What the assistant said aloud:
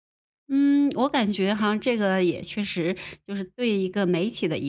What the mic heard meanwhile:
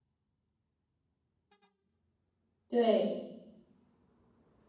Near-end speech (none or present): present